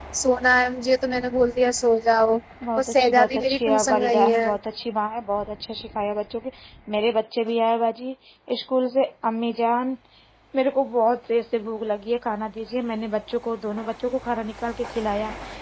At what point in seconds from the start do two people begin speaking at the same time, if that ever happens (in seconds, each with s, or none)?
2.8 s